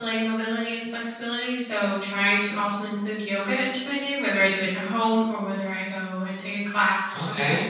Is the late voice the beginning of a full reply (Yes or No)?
Yes